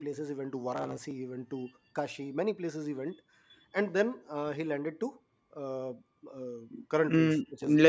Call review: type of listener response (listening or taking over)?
taking over